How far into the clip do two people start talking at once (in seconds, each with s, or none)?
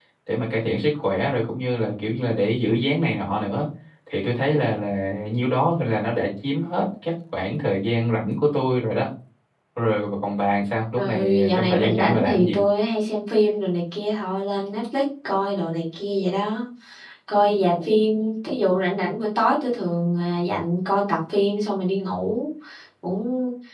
11.0 s